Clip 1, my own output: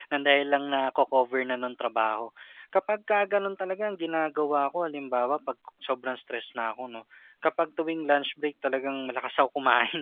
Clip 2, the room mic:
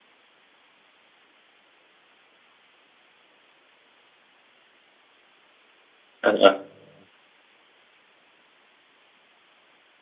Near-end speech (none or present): present